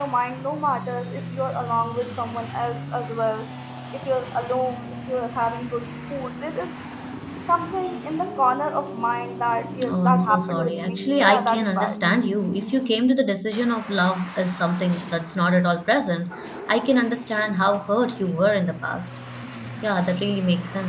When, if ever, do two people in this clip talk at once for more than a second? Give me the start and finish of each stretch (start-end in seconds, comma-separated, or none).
9.9-12.0